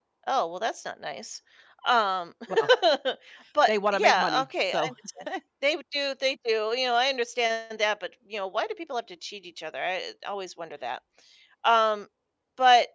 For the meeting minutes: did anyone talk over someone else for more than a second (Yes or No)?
Yes